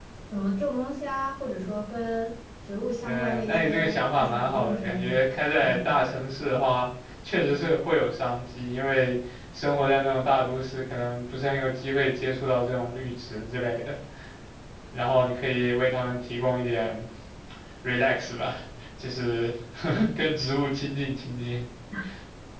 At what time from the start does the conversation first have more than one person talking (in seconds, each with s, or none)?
3.0 s